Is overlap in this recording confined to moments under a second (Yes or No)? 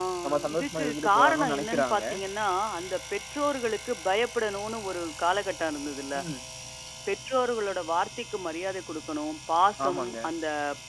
No